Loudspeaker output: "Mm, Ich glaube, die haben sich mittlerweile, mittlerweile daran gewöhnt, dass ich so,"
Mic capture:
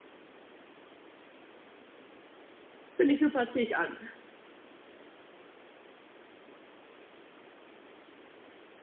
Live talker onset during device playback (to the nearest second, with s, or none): 3 s